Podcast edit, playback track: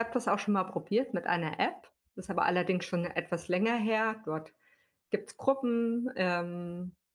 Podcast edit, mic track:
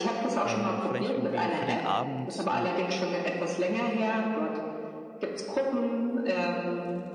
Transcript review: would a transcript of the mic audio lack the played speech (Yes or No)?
No